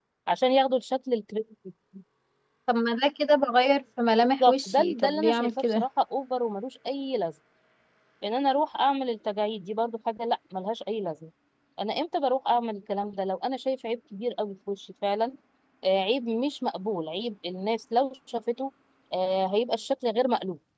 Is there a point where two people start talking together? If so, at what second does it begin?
4.4 s

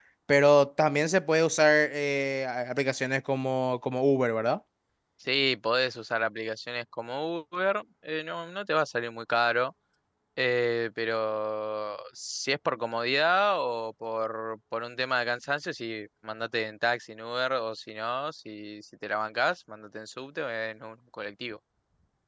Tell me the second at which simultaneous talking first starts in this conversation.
none

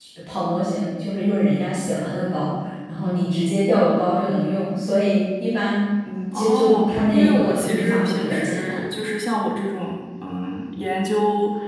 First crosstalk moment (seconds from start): 6.3 s

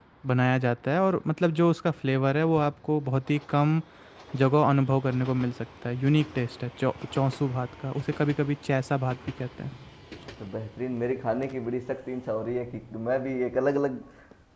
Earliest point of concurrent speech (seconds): none

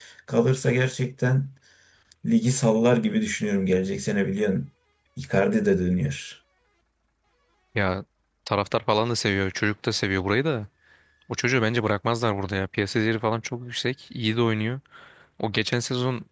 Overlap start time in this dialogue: none

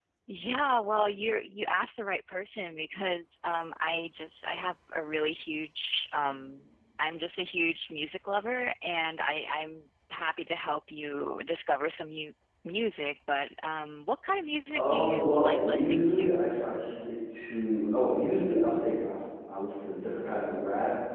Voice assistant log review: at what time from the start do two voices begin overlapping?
14.7 s

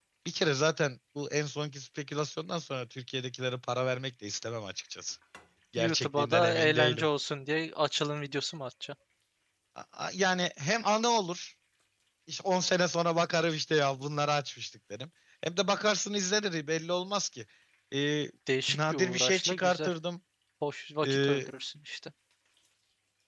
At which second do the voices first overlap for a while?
5.8 s

